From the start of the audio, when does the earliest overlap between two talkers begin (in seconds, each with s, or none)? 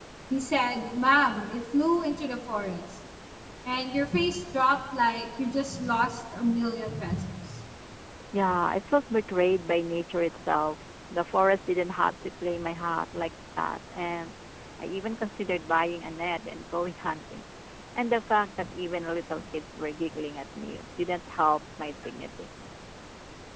none